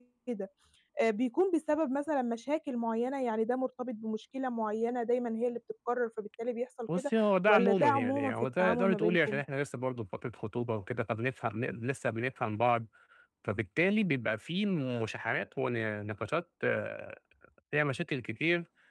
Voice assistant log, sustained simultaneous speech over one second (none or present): present